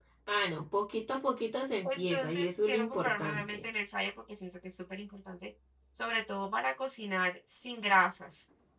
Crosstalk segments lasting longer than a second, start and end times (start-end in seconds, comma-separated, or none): 1.8-3.6